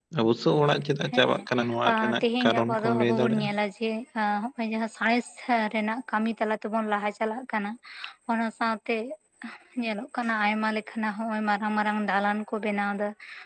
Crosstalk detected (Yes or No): Yes